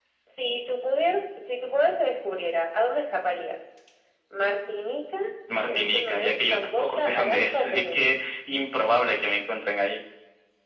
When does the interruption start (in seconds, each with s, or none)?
5.7 s